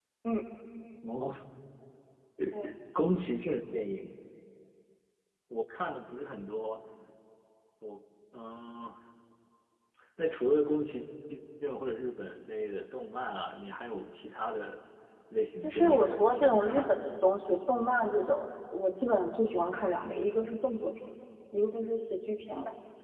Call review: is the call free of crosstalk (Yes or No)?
No